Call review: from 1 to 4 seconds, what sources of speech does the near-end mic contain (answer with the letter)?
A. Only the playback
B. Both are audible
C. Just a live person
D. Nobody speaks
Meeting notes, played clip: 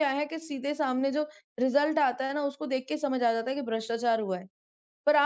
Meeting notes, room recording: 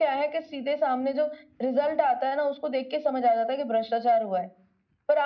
A